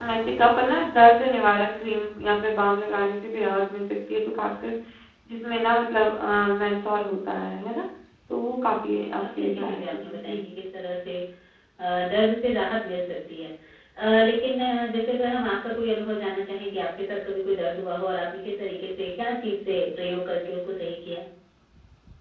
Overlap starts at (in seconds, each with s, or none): 8.7 s